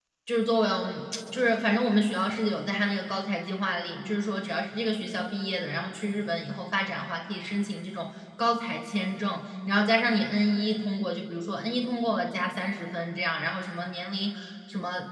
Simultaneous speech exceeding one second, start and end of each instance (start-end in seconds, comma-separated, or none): none